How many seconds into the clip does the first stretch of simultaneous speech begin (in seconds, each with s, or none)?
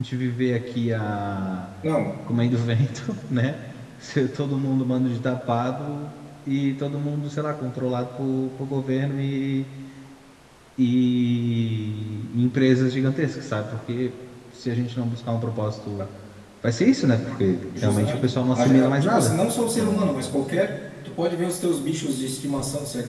17.7 s